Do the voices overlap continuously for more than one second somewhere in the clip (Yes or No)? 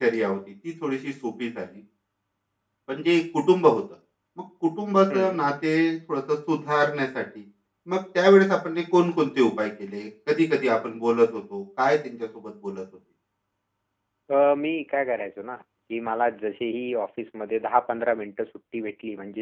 No